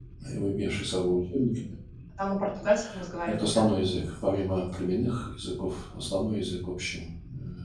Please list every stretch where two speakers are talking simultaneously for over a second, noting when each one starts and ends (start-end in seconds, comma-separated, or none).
none